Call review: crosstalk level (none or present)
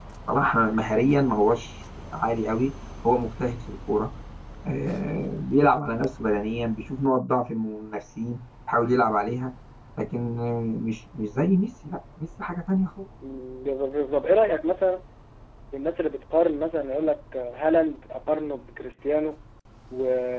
none